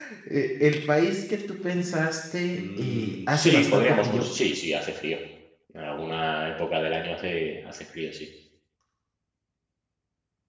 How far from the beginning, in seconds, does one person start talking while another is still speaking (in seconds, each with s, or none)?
2.5 s